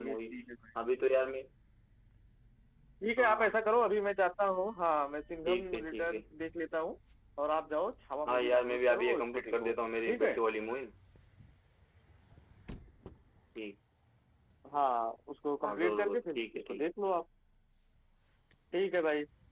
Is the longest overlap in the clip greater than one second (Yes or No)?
Yes